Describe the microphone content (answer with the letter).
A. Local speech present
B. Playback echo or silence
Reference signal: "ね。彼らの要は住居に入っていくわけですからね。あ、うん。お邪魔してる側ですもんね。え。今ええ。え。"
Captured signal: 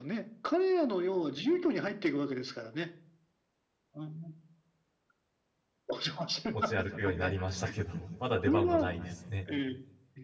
A